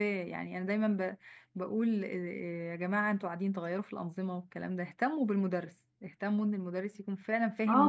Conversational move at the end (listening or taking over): taking over